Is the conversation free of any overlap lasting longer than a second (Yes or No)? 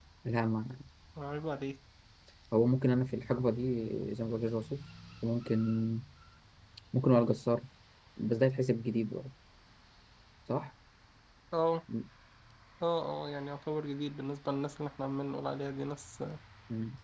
Yes